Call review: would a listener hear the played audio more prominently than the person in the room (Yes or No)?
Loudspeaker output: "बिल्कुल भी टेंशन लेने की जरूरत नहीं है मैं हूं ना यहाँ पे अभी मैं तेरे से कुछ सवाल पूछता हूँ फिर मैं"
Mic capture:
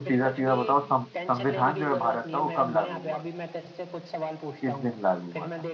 No